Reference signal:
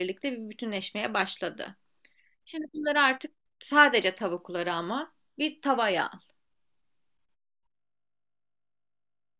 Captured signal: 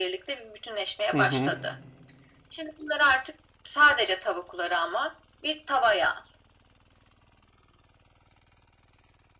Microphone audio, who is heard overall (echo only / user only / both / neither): both